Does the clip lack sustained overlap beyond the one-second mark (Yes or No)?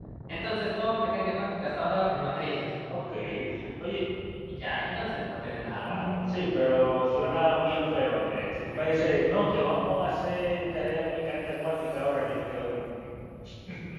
Yes